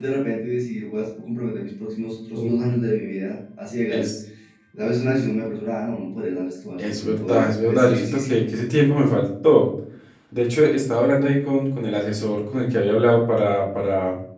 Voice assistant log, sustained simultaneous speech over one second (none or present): present